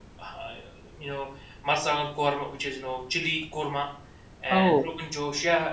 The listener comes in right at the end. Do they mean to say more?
No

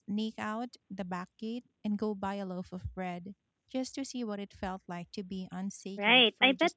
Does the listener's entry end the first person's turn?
Yes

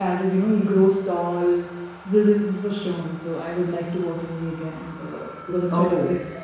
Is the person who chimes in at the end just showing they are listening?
Yes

